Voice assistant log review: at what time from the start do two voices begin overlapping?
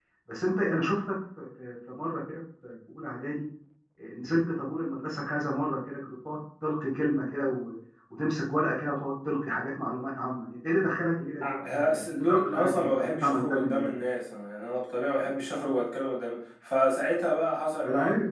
11.4 s

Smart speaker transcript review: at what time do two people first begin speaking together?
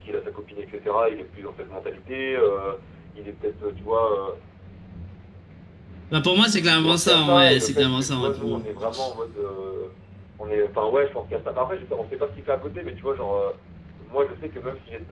6.9 s

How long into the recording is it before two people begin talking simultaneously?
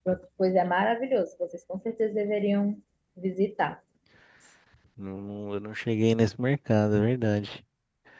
none

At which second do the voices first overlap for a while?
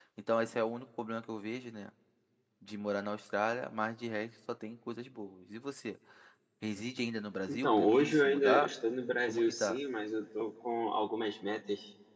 7.5 s

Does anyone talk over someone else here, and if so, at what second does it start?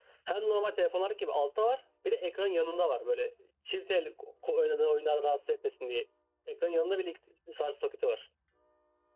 none

